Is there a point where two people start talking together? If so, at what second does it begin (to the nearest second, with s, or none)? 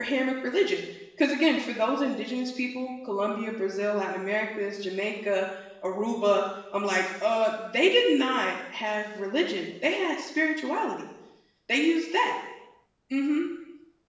none